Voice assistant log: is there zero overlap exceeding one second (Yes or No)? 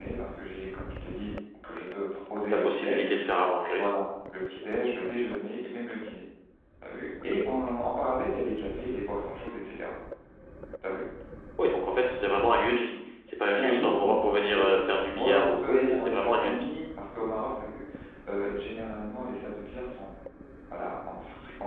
No